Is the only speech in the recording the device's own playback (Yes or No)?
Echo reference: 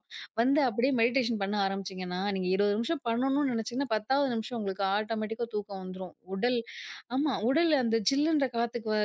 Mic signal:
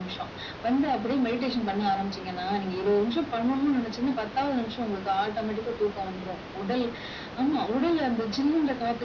Yes